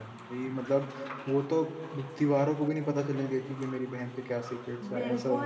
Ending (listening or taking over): taking over